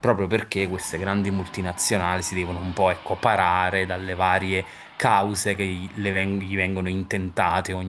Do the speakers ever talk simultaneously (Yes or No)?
No